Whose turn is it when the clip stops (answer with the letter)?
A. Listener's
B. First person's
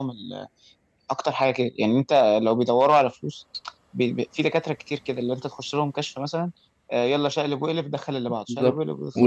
A